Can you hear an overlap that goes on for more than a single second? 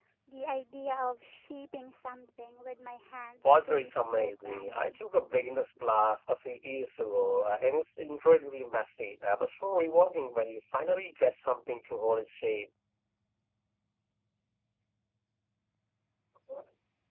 Yes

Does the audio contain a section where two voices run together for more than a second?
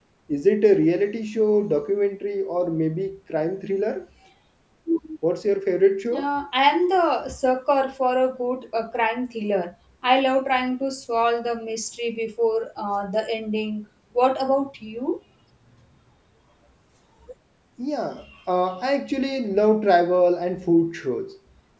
No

